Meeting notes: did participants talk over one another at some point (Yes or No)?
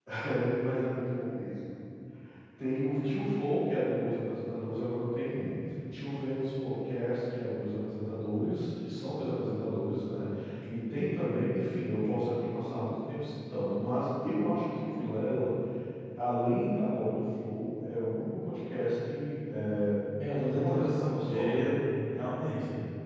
Yes